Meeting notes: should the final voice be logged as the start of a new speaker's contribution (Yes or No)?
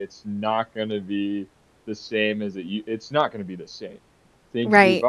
Yes